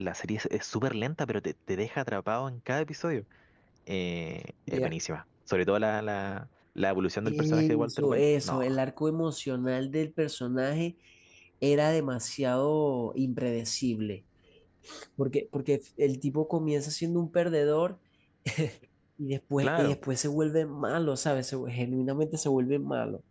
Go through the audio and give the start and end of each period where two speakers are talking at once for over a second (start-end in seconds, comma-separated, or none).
7.2-8.6